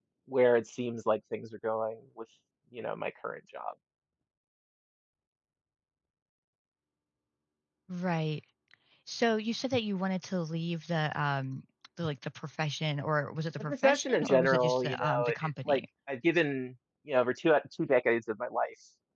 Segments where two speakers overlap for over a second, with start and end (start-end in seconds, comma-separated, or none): 13.6-15.8